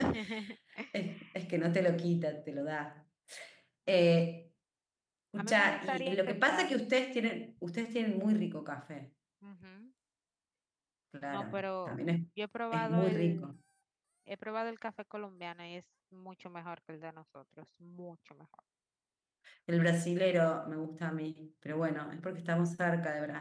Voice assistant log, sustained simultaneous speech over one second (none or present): present